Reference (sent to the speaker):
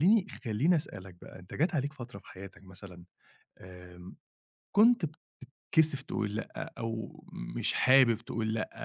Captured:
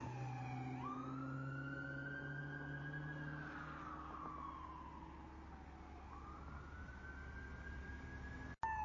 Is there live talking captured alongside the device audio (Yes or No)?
No